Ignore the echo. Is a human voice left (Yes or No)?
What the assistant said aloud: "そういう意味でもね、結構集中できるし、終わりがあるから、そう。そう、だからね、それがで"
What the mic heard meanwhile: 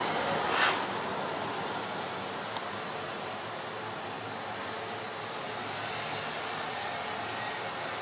No